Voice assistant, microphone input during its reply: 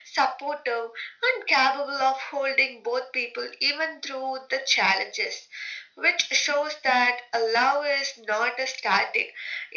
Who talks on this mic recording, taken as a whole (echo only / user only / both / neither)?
echo only